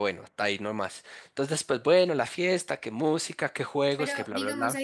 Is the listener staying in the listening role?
No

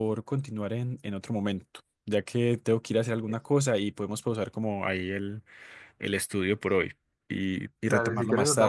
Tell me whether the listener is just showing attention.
No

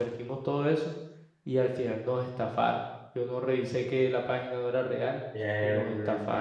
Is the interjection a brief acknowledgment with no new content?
No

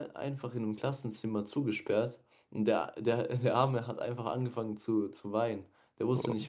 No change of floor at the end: Yes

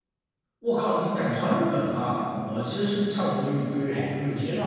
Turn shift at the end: Yes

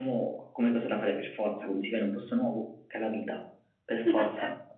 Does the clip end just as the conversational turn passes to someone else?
Yes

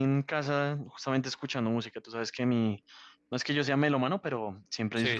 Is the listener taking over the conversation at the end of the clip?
No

